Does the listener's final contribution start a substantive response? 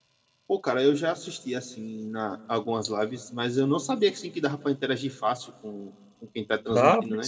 Yes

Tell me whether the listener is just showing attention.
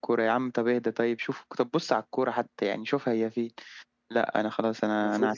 No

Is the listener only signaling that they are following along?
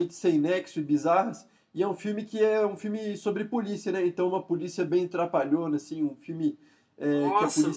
Yes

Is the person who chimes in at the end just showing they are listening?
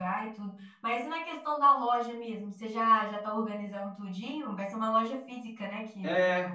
No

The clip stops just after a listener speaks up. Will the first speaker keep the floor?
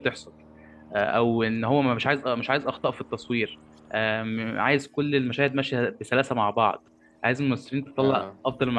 Yes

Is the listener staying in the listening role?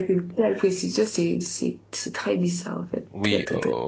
No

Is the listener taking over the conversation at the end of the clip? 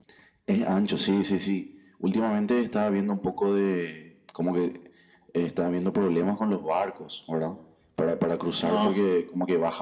No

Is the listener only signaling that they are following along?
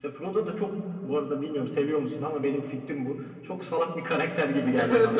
No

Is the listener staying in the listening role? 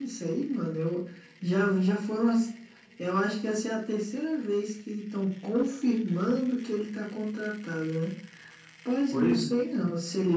Yes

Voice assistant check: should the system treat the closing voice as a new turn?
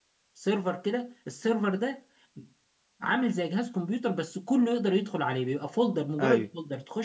No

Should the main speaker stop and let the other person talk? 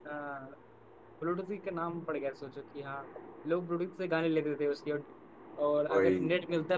No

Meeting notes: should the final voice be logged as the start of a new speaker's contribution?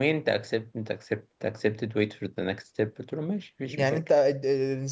Yes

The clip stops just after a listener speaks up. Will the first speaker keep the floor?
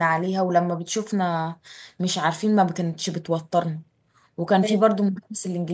Yes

